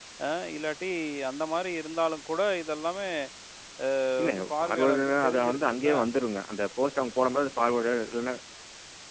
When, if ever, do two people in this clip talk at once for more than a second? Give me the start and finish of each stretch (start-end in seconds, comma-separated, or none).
4.2-5.9